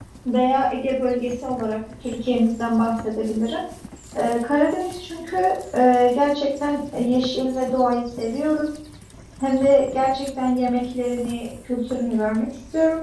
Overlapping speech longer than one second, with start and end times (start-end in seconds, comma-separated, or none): none